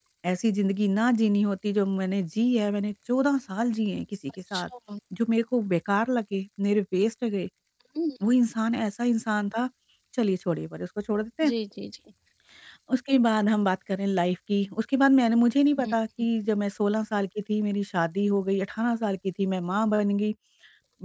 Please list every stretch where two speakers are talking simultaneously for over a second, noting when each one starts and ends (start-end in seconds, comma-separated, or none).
none